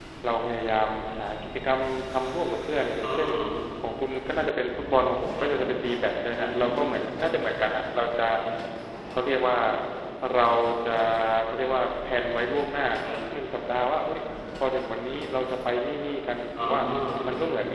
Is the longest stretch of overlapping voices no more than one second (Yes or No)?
Yes